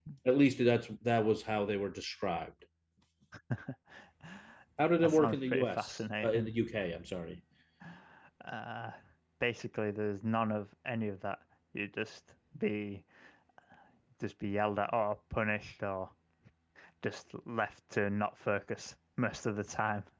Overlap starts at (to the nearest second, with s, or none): 5 s